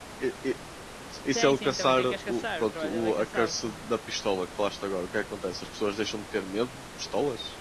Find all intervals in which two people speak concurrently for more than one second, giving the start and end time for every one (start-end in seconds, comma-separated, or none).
1.3-3.8